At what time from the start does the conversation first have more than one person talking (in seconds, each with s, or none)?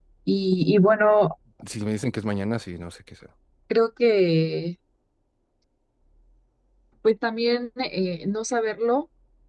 none